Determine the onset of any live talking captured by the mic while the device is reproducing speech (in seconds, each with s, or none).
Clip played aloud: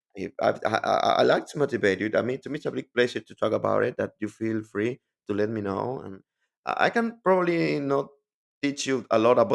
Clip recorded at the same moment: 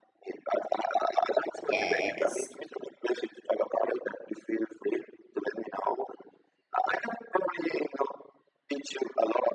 1.6 s